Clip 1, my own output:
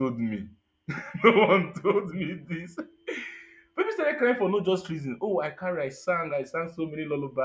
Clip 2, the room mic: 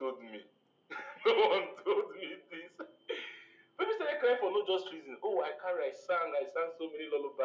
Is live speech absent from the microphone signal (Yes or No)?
Yes